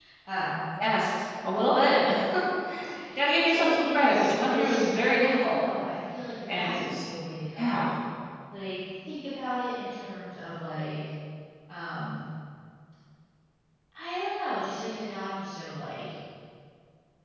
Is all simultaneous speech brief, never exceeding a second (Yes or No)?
No